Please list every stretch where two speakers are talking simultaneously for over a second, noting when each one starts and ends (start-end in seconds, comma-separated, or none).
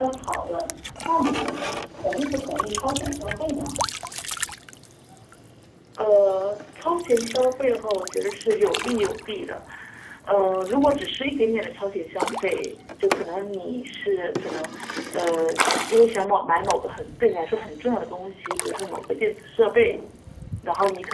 none